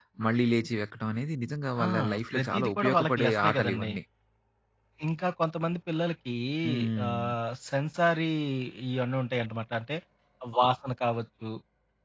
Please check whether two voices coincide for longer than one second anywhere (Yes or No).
Yes